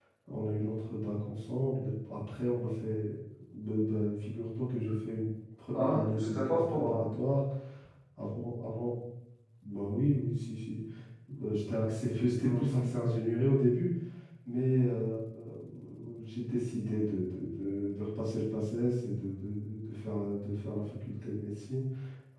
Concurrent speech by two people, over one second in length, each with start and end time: 5.7-7.1

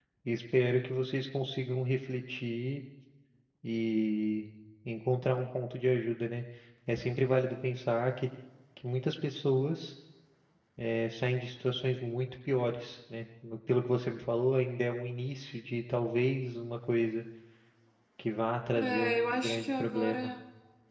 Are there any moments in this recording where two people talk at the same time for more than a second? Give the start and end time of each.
18.8-20.4

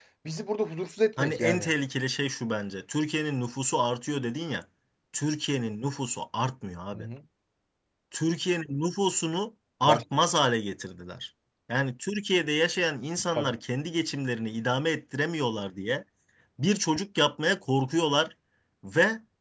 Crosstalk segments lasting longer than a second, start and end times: none

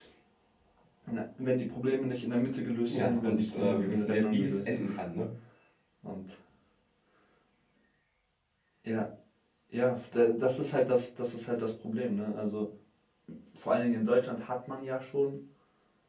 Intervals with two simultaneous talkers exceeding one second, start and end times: 2.9-4.8

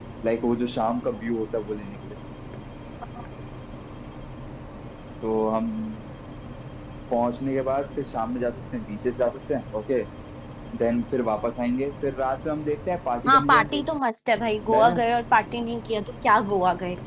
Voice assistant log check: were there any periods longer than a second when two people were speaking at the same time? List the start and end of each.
none

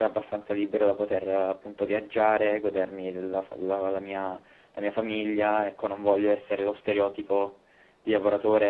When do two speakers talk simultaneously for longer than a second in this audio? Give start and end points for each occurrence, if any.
none

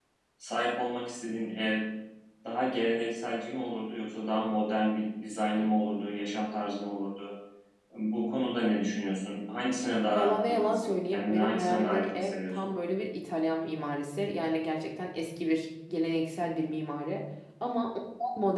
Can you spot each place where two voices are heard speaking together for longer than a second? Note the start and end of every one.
10.1-12.7

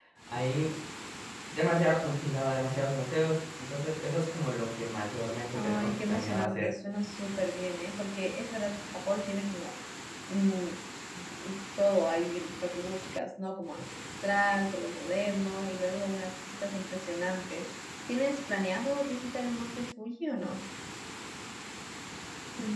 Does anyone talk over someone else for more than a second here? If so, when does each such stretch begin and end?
5.5-6.8

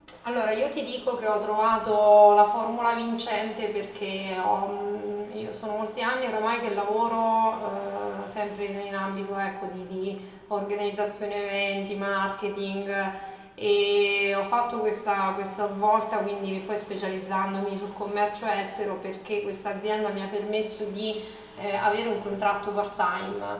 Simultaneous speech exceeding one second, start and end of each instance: none

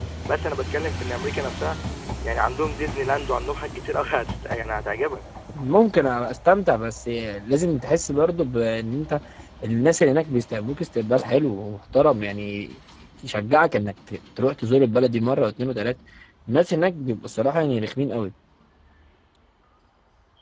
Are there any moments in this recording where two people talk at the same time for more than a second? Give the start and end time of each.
none

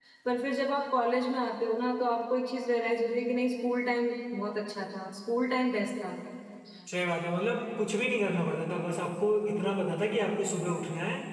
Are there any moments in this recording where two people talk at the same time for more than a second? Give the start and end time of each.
none

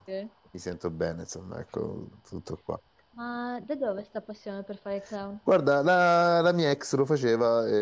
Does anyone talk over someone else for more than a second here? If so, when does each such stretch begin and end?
none

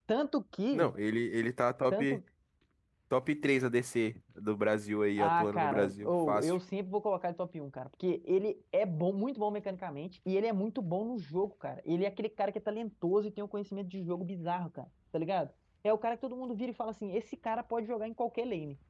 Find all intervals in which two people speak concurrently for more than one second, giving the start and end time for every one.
5.2-6.6

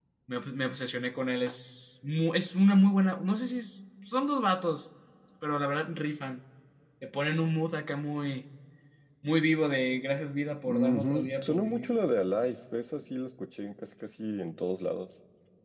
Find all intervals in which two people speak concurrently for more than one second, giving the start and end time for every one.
10.6-11.9

